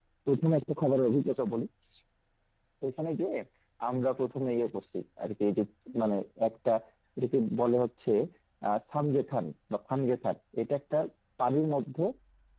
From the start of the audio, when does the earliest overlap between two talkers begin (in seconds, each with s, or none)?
none